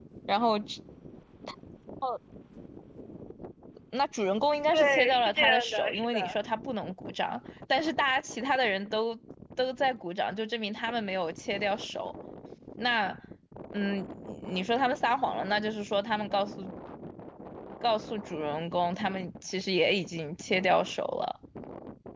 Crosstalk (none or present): present